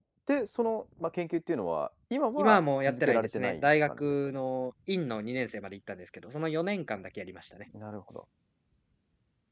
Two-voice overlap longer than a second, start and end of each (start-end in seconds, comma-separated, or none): 2.4-4.4